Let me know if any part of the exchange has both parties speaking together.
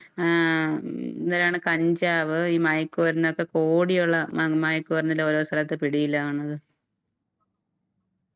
No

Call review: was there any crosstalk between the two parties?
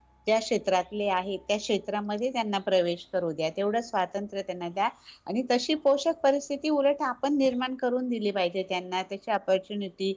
No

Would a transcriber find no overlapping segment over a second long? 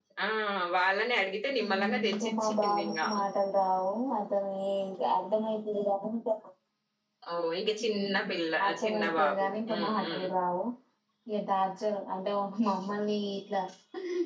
No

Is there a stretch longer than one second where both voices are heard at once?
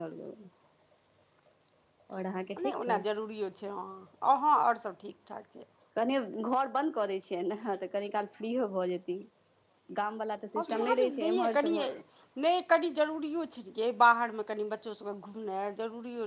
Yes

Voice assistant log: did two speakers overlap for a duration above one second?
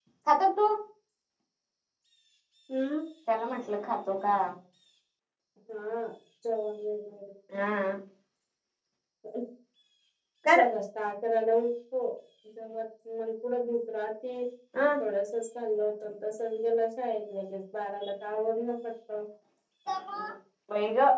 No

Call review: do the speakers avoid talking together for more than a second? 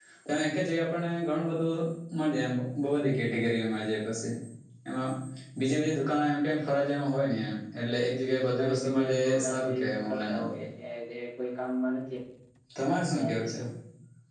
No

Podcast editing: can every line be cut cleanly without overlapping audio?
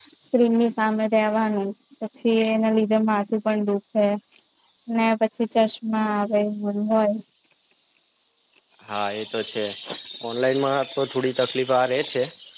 Yes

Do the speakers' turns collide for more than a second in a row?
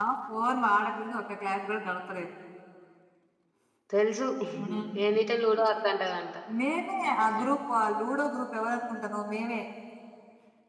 No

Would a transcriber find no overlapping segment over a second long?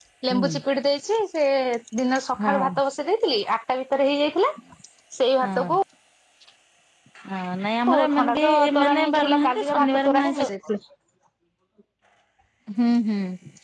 No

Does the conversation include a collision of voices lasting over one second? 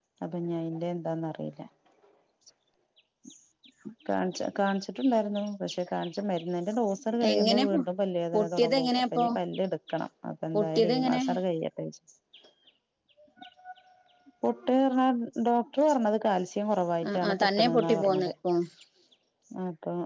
Yes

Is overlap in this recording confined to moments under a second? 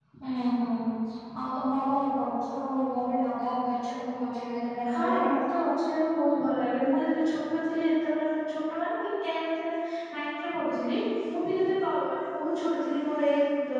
Yes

